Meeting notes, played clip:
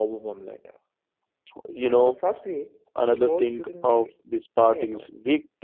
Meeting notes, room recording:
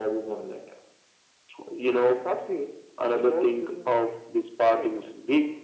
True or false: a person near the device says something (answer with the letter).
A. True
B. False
B